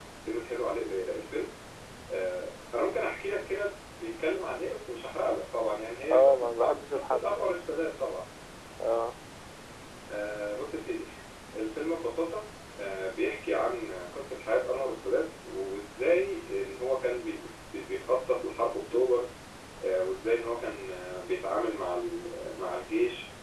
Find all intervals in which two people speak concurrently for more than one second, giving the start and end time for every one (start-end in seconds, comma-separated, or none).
6.1-7.5